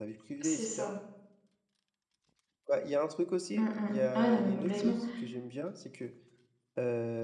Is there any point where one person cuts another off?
Yes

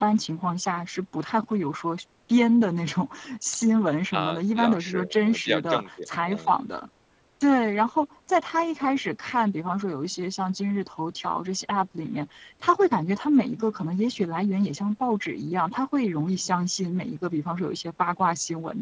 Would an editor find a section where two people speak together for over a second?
Yes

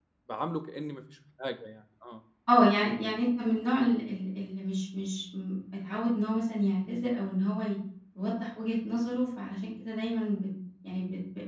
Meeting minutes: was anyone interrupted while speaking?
No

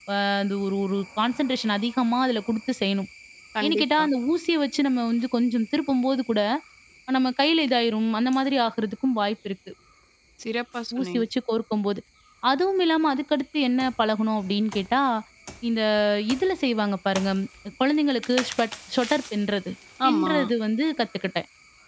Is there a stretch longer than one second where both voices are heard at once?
No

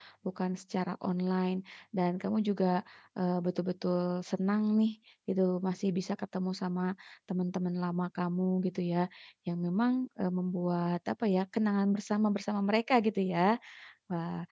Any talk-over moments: No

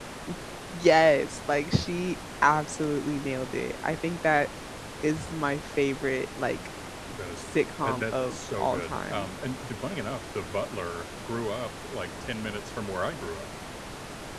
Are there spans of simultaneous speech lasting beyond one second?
Yes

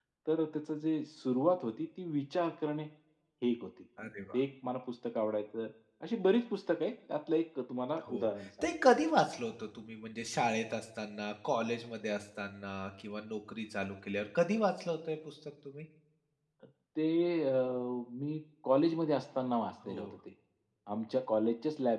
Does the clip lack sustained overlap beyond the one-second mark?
Yes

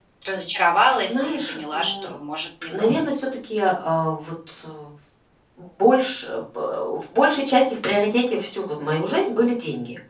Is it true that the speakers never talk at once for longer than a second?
No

